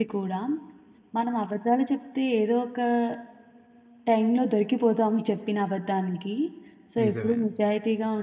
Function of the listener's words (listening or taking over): listening